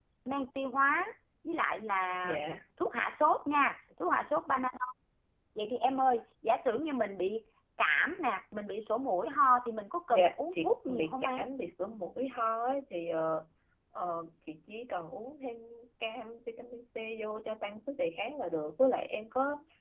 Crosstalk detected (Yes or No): Yes